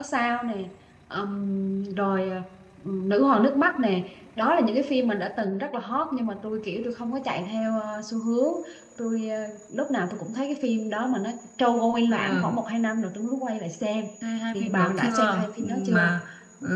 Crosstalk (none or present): present